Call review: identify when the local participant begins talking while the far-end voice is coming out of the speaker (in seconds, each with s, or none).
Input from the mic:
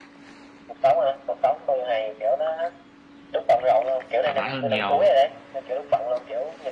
4.2 s